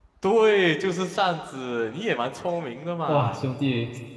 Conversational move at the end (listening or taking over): taking over